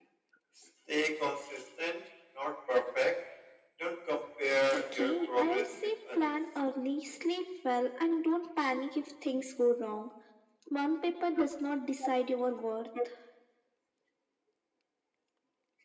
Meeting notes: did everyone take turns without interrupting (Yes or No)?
No